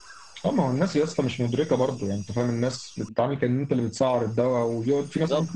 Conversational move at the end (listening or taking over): listening